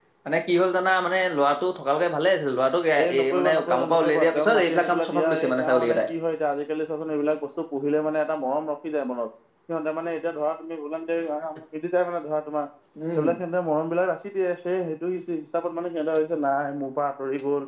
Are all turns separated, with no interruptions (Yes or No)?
No